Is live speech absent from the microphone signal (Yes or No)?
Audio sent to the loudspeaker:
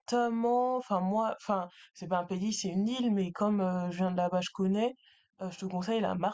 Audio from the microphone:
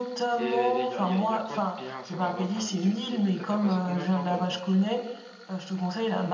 No